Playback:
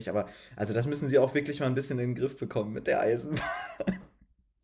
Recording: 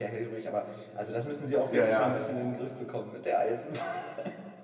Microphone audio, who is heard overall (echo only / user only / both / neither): both